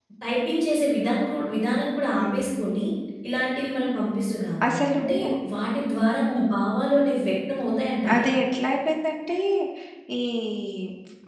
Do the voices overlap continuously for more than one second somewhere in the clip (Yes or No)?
No